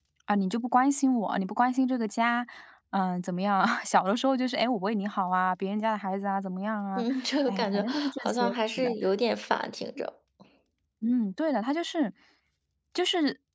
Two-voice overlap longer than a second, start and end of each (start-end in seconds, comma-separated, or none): 7.5-8.9